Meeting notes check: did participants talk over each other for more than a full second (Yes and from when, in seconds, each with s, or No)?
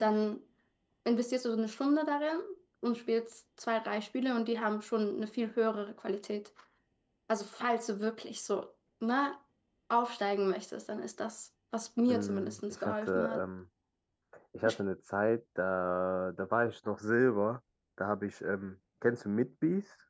Yes, from 12.1 s